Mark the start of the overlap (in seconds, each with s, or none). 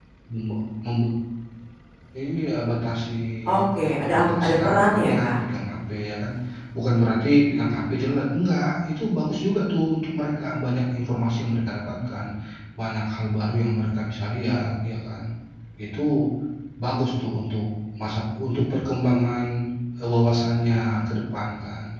3.6 s